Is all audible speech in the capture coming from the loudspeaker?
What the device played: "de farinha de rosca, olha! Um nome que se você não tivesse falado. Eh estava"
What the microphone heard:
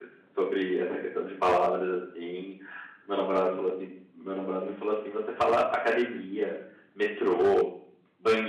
No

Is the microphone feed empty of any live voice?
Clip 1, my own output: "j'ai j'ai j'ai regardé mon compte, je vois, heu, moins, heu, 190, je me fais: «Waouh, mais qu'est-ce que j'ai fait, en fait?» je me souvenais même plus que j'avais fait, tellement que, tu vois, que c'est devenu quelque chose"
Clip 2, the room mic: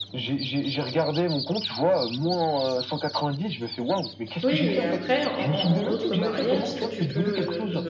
No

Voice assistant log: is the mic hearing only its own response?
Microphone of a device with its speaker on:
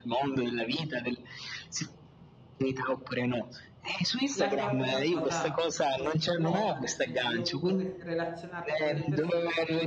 No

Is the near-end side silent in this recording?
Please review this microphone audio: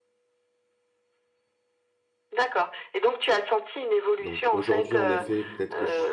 No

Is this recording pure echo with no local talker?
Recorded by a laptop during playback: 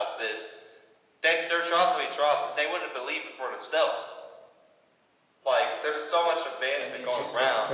No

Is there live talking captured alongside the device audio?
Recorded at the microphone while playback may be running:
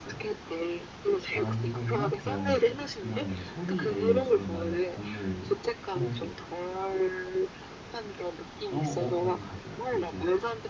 Yes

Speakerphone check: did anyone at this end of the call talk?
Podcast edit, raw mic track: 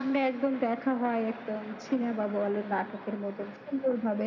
No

